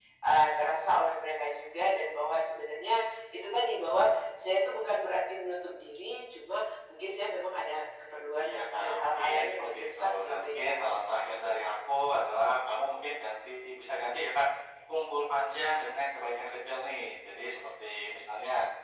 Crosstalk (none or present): present